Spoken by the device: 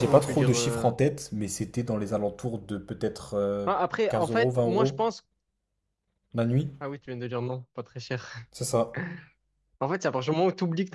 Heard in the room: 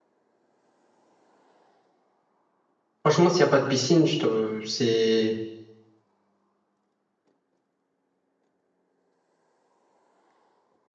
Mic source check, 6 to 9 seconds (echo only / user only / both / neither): neither